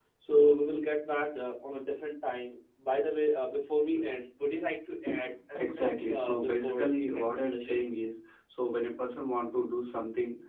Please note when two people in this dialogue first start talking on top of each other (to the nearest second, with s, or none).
6 s